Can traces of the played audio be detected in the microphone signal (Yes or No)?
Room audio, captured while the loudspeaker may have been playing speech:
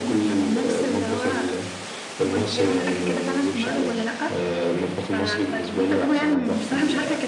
Yes